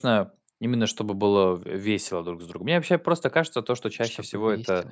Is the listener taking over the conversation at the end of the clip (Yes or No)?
No